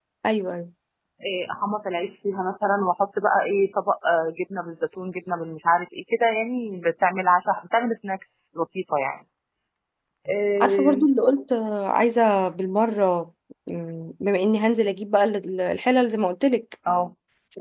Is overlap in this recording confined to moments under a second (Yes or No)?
Yes